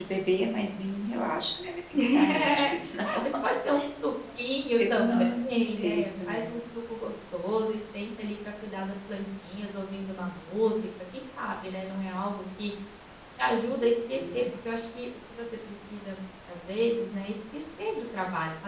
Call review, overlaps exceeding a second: present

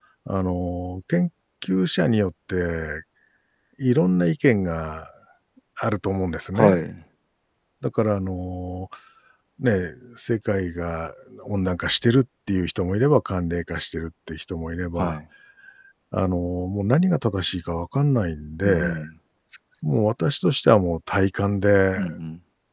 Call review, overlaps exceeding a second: none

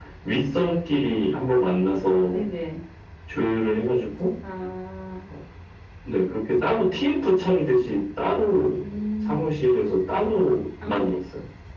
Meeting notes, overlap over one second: none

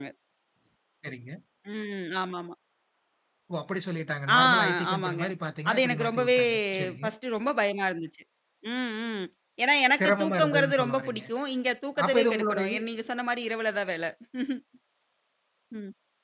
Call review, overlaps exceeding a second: present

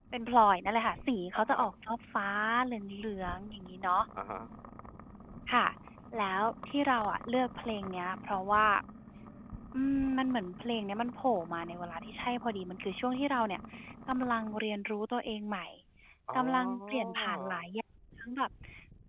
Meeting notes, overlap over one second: present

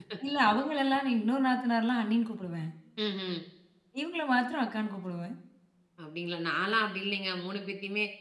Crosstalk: none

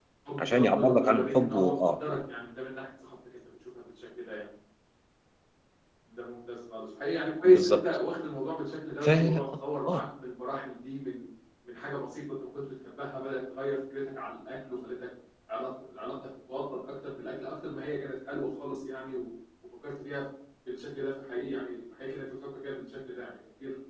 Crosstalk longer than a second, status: present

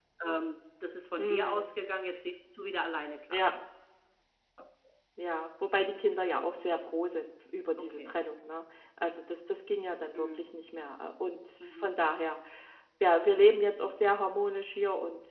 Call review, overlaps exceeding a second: none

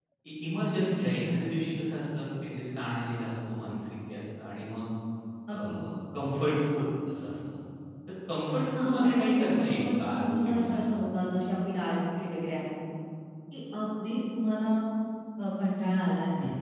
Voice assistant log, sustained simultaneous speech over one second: present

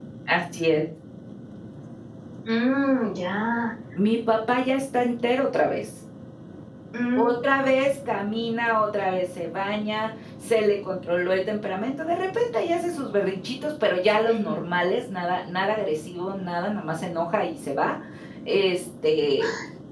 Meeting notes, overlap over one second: none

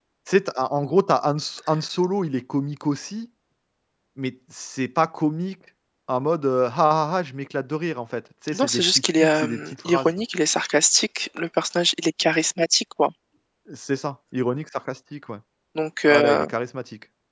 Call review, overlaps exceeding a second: present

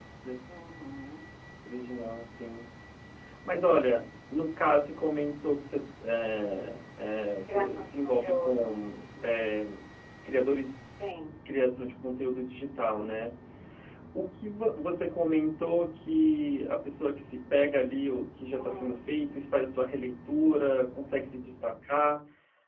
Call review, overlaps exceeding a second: present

